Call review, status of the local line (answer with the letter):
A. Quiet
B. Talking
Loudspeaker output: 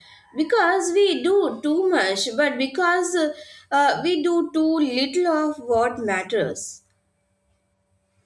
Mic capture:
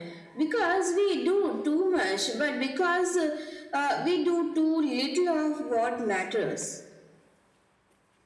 A